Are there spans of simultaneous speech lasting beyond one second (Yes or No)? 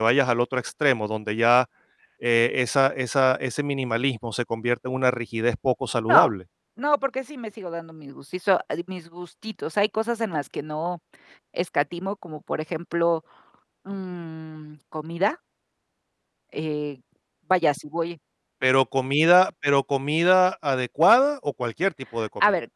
No